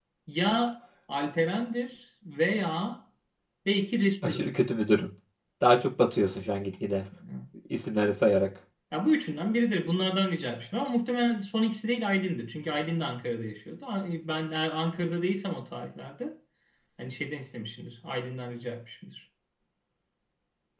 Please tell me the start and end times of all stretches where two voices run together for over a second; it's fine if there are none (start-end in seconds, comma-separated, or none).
none